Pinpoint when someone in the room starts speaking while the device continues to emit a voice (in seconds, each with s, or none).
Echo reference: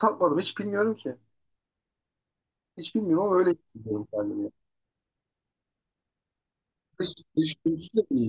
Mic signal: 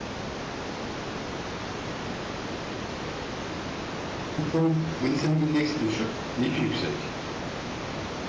4.4 s